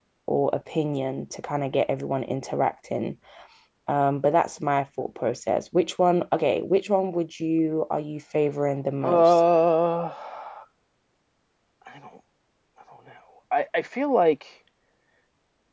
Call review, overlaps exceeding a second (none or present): none